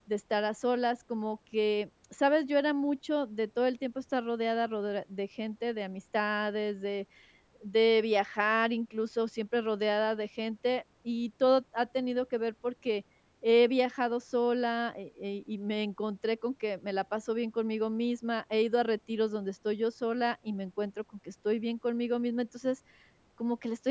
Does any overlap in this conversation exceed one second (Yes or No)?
No